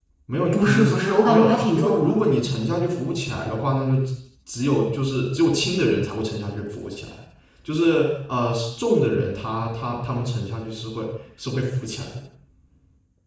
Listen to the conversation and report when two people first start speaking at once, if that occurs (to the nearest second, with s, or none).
1 s